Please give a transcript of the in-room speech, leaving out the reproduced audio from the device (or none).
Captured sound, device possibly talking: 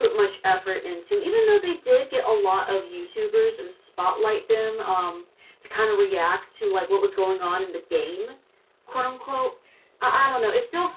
none